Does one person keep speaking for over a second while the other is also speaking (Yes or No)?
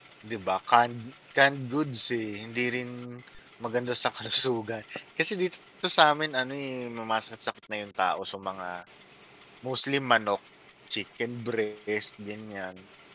No